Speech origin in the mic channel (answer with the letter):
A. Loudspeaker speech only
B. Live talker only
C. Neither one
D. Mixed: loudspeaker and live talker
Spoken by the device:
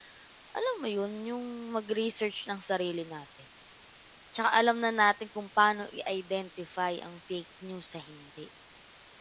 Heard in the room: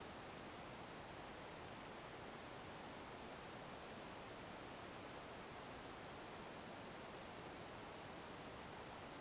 C